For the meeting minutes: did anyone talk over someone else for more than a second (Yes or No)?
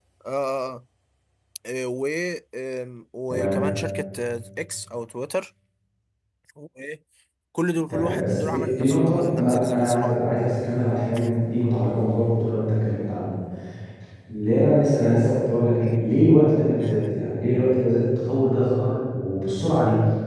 Yes